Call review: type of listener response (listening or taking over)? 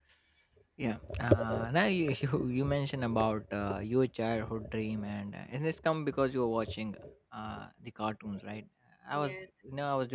listening